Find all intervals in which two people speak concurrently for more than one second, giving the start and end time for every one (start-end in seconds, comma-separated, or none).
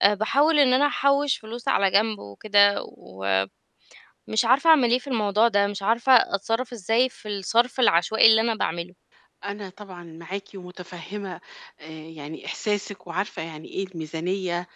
none